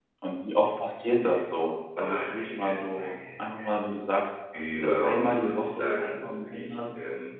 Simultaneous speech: Yes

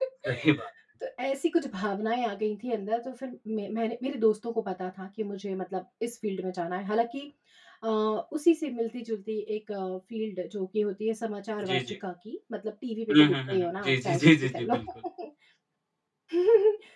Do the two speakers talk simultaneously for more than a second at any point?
Yes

